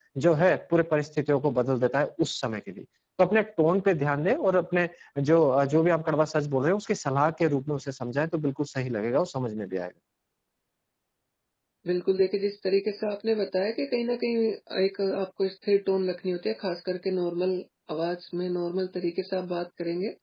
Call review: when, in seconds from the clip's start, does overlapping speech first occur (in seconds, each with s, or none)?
none